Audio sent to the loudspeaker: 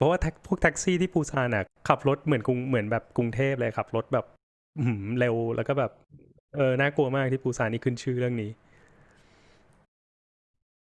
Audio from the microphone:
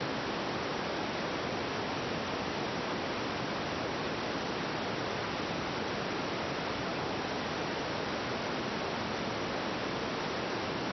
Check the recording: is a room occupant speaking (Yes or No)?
No